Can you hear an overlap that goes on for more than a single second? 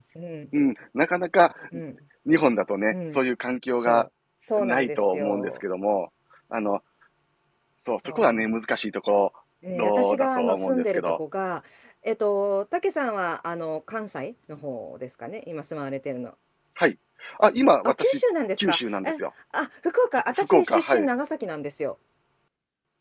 Yes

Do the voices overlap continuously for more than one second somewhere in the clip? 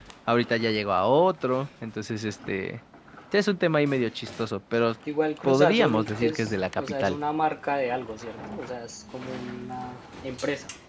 Yes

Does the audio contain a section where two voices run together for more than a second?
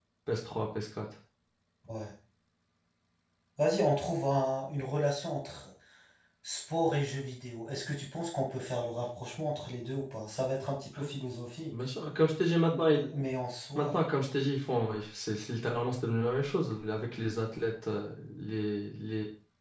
No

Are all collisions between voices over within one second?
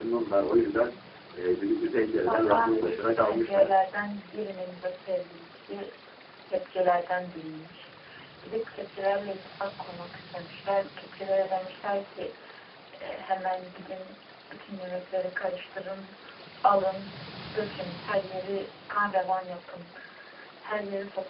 No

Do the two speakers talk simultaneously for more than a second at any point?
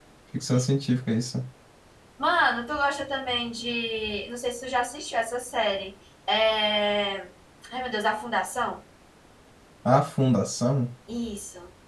No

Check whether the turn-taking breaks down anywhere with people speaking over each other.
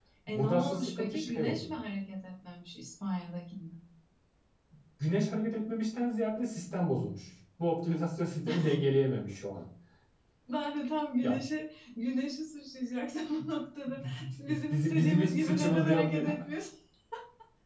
Yes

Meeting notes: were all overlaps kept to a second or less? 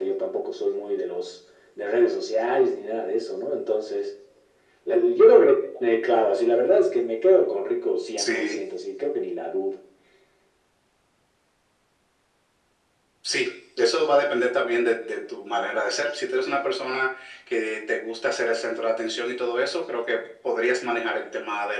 Yes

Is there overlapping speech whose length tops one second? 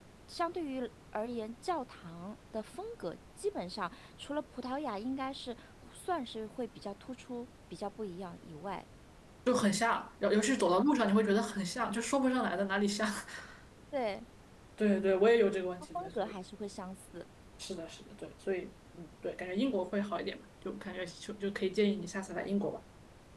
No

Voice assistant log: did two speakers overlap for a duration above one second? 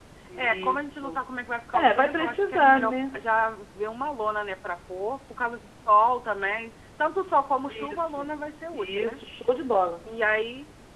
Yes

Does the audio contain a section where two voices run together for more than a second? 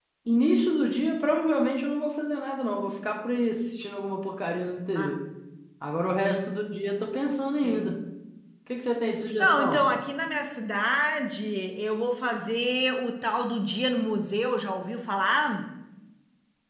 No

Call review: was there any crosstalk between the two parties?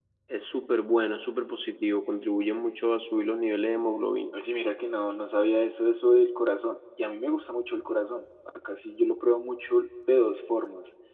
No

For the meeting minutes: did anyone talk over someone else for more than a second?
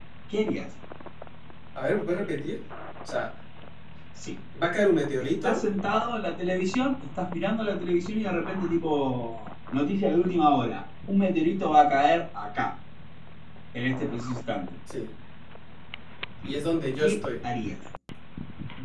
No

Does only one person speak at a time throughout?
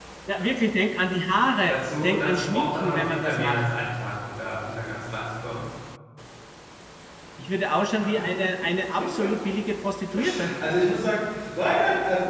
No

